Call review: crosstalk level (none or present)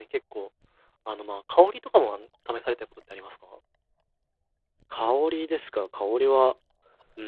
none